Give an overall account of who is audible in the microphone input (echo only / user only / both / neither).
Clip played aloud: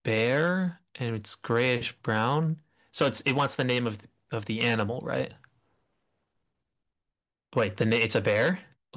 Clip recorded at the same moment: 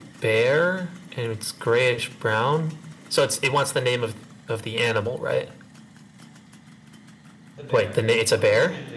both